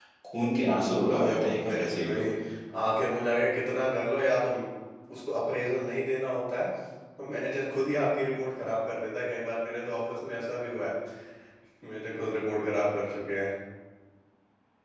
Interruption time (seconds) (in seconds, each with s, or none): 0.9 s